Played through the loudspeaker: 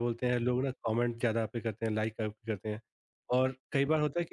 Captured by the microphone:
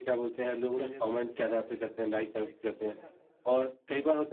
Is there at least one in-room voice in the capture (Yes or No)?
Yes